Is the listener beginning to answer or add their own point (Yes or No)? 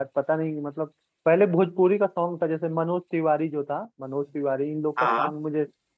No